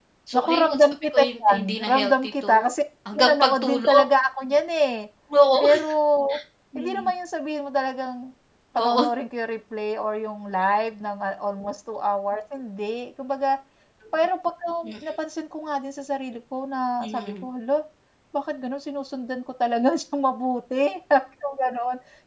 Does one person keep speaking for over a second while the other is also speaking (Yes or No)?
Yes